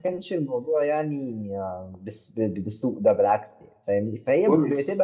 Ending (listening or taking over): listening